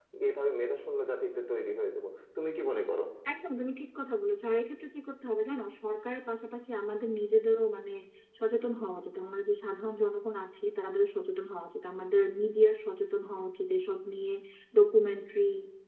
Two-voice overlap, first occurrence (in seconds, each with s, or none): none